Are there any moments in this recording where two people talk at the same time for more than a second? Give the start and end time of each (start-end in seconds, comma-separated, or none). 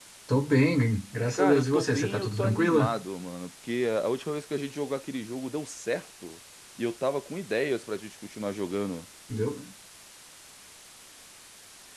1.3-2.9